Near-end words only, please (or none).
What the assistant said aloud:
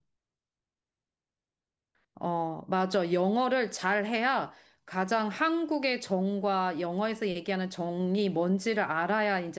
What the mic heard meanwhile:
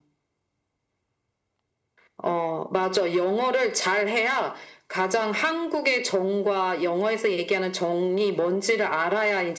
none